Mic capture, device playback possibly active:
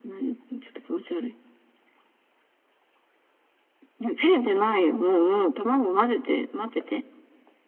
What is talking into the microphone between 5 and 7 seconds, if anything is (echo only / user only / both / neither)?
echo only